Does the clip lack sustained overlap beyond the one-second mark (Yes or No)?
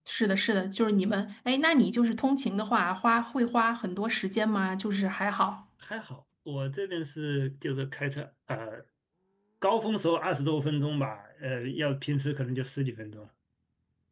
Yes